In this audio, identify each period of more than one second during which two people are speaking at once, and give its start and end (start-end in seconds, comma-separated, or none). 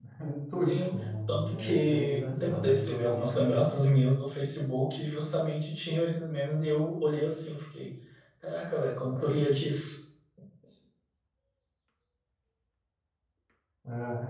0.5-3.2